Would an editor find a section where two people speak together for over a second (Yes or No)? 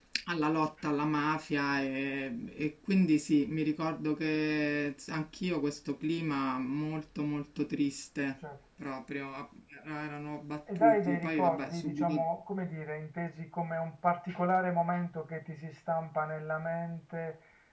Yes